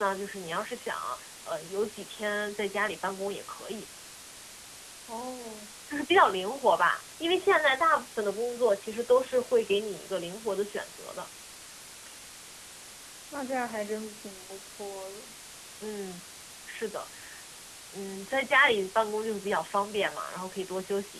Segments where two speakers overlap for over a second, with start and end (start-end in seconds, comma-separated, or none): none